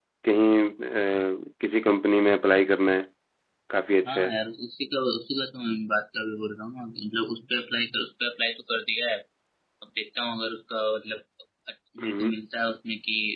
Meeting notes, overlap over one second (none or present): none